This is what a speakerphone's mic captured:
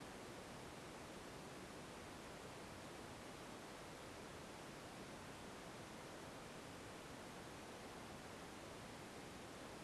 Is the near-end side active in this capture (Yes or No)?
No